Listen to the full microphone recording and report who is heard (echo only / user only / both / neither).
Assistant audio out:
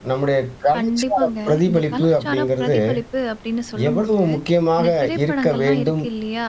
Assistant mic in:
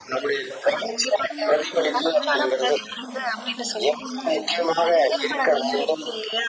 both